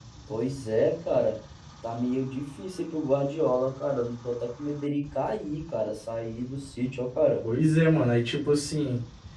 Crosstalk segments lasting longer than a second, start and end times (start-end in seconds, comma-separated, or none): none